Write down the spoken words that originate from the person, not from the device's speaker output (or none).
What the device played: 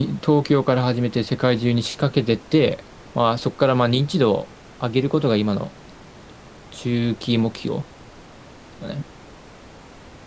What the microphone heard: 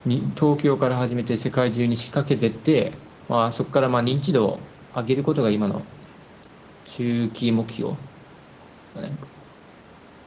none